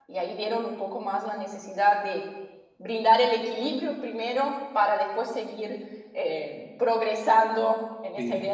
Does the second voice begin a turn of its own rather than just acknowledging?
Yes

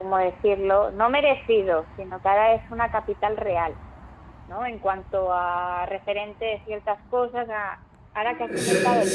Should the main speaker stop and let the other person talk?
No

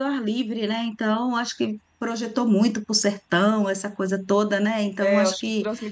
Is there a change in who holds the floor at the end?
Yes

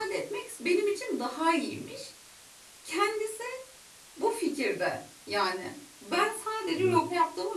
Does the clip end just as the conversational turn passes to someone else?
No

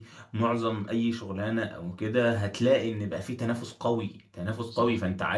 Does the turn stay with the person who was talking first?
Yes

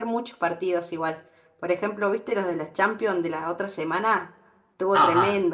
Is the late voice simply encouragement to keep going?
No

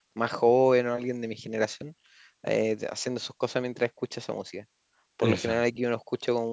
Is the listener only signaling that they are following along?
Yes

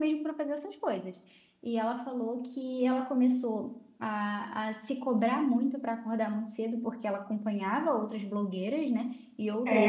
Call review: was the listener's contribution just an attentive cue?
No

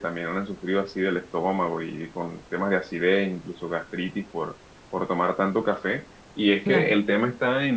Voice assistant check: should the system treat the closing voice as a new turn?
No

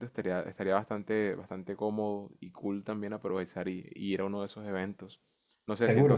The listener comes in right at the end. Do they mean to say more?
No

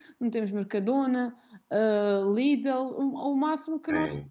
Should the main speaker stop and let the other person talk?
Yes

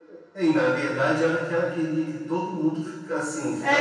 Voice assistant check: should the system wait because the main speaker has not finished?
No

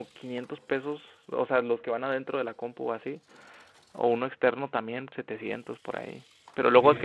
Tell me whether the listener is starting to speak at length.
No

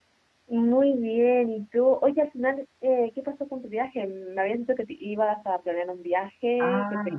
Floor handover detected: Yes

